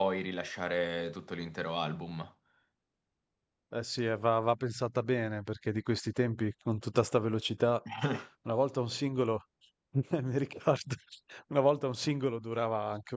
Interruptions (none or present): none